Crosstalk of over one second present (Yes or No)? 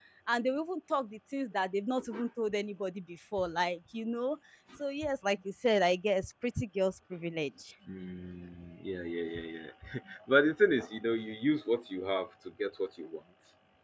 No